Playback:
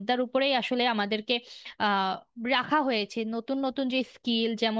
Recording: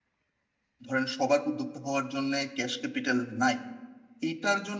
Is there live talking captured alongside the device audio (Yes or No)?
Yes